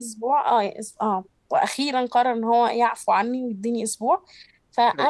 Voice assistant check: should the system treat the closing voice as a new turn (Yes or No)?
No